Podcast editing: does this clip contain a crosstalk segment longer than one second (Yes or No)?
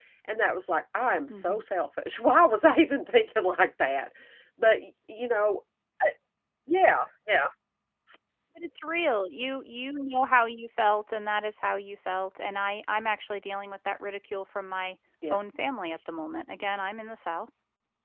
No